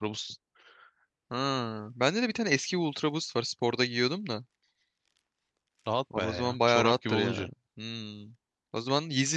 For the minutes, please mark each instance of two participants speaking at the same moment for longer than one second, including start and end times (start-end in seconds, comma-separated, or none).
6.2-7.5